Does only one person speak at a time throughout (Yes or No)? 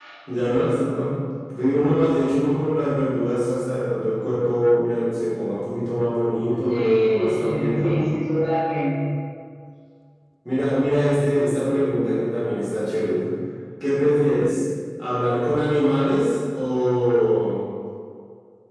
No